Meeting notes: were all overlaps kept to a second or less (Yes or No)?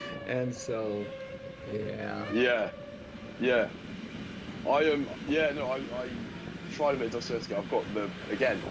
Yes